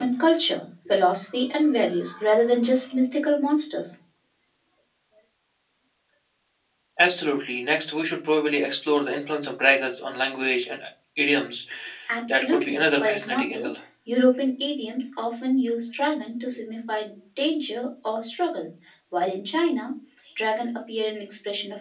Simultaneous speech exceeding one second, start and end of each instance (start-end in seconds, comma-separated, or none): 12.3-13.7